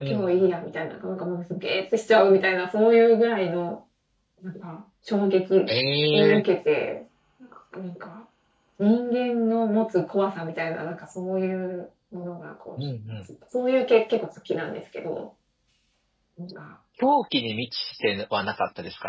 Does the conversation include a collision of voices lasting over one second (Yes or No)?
No